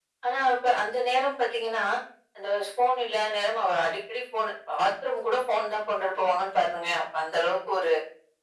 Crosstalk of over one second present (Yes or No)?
No